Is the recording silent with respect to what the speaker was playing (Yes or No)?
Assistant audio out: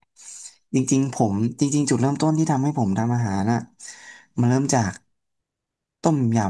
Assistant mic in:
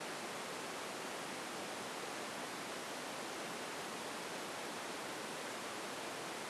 Yes